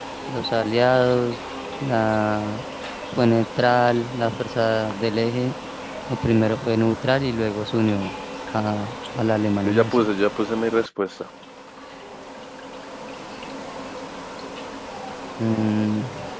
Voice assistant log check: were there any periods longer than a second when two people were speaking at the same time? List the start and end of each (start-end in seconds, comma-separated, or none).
none